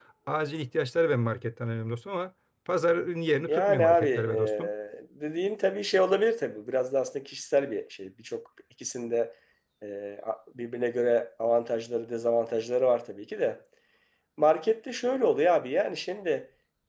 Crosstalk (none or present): present